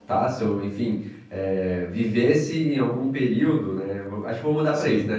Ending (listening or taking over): listening